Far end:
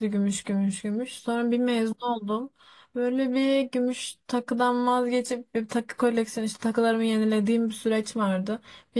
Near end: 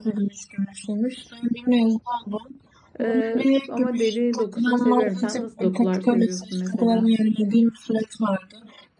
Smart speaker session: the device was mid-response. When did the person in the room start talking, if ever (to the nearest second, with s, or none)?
3 s